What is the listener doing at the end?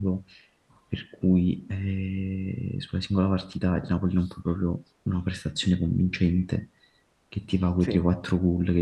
listening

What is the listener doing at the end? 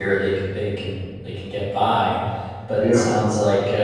listening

